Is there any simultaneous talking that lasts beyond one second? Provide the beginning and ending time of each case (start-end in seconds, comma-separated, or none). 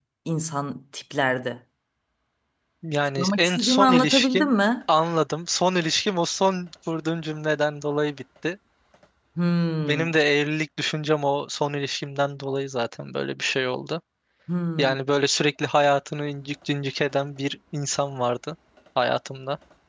3.2-4.7